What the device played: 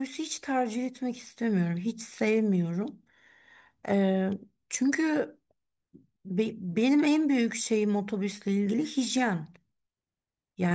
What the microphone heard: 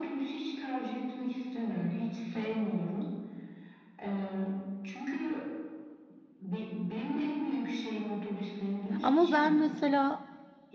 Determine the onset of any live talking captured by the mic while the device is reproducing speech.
9.0 s

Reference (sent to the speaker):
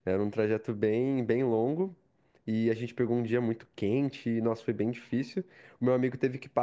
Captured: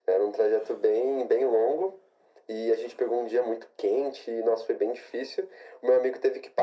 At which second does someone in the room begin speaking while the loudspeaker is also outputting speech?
none

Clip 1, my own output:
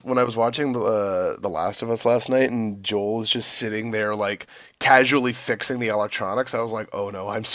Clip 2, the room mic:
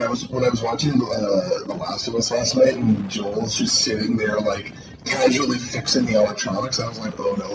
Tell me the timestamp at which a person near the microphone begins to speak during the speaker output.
none

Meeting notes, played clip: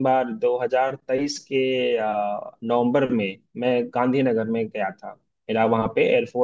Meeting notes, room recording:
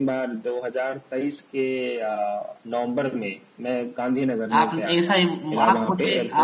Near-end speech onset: 4.5 s

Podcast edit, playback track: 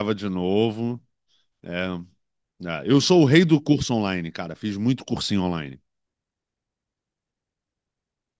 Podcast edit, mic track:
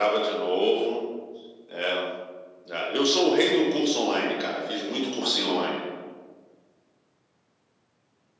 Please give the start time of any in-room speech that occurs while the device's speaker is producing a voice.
none

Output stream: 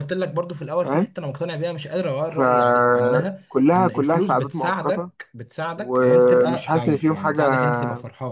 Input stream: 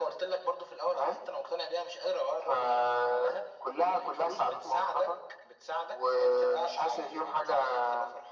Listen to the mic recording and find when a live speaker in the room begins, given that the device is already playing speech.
none

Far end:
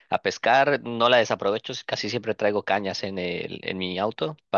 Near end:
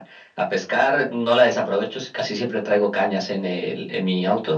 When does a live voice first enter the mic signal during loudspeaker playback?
none

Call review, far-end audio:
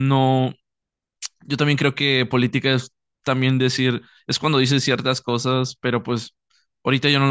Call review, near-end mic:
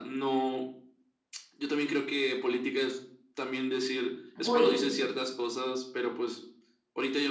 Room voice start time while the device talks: 4.4 s

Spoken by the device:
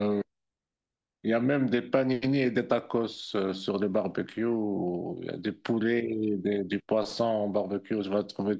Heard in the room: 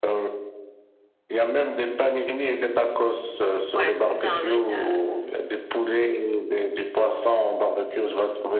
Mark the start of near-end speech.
3.7 s

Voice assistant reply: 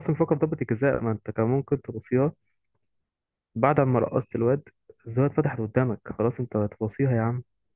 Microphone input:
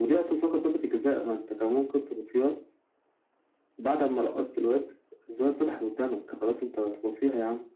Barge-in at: none

